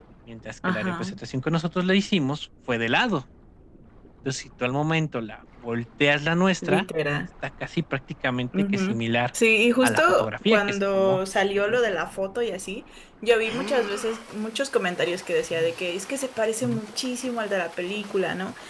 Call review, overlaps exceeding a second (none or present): present